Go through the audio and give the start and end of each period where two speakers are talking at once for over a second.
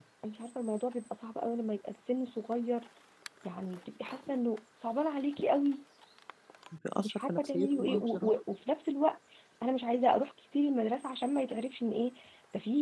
7.0-8.3

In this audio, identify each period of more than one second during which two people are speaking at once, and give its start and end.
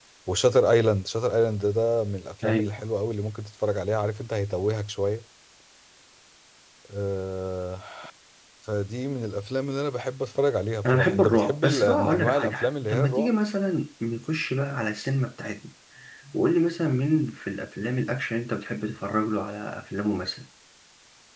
10.8-13.3

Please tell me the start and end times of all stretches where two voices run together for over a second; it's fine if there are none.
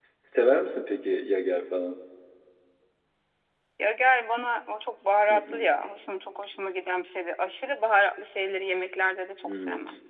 none

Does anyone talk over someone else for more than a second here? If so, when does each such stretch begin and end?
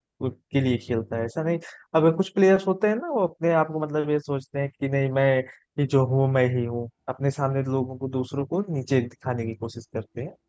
none

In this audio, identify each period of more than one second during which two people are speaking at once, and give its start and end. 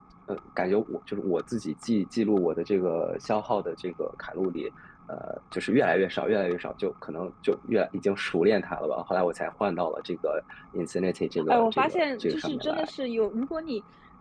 11.5-12.9

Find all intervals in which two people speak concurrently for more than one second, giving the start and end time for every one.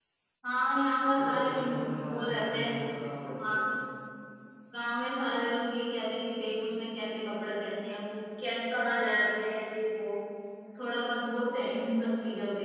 1.1-2.7

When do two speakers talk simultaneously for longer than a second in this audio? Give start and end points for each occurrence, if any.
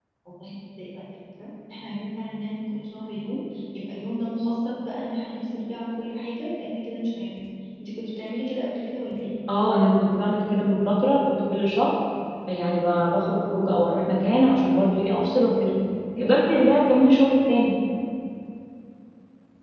none

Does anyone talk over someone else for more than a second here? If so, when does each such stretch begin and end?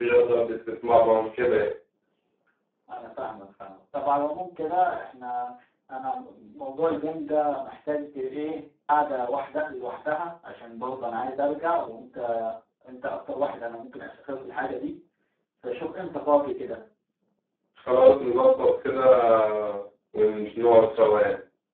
none

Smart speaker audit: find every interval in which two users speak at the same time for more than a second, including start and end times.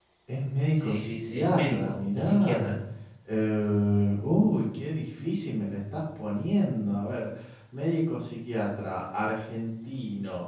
0.7-2.7

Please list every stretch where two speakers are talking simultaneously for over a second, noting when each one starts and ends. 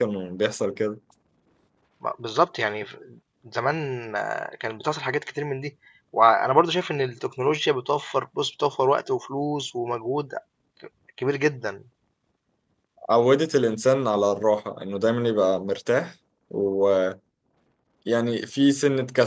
none

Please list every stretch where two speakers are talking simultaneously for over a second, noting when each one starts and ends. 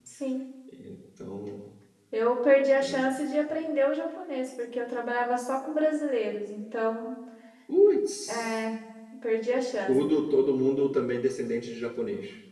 none

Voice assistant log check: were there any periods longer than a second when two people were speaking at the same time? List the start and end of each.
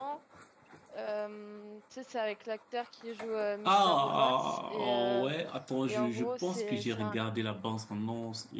3.7-5.3, 5.9-7.2

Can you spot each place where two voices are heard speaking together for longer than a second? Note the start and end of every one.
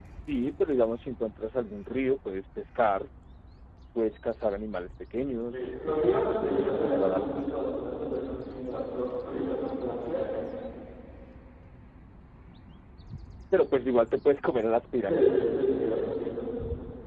5.5-7.5

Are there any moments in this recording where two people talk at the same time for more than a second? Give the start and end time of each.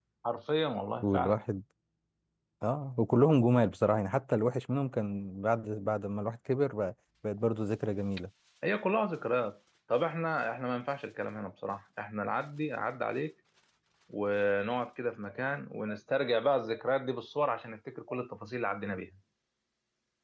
none

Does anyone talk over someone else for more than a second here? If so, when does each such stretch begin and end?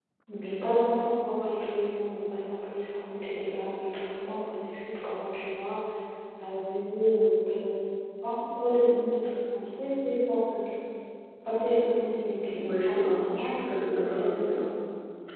12.6-14.6

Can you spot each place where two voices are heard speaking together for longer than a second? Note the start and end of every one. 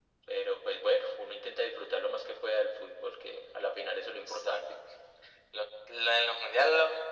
none

